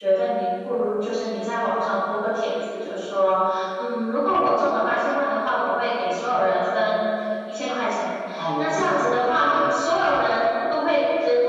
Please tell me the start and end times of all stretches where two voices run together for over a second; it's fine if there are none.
8.3-9.8

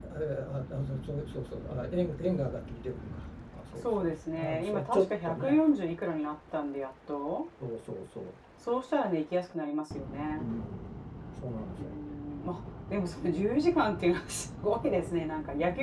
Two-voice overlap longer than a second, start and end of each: 3.8-5.6

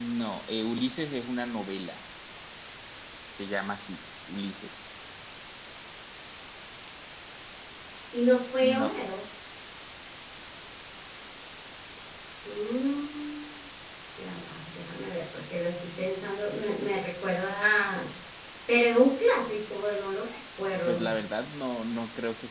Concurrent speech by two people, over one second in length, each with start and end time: none

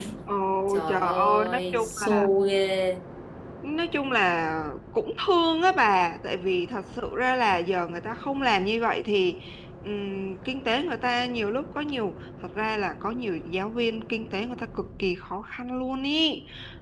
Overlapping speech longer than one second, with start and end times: 0.9-2.3

